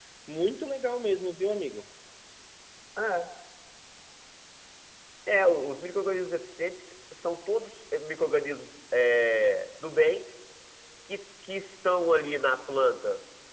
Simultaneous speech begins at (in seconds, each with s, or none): none